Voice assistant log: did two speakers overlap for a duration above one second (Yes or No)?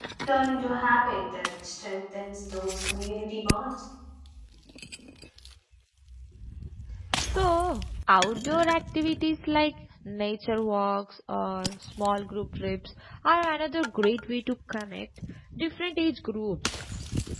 No